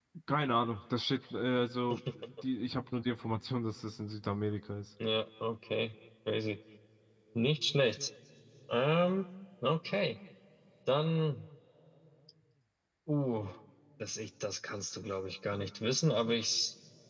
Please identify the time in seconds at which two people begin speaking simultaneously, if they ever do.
none

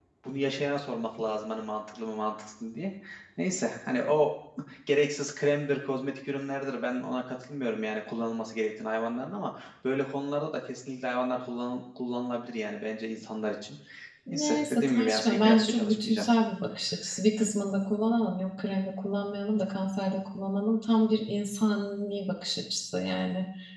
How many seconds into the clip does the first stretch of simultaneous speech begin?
14.3 s

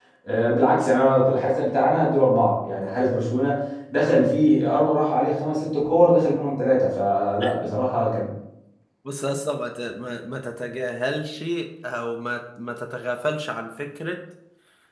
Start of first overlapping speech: none

